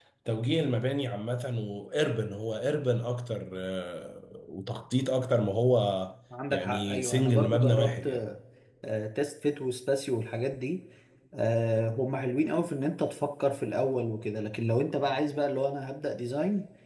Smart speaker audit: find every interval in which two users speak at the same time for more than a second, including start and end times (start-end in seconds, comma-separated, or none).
6.5-8.1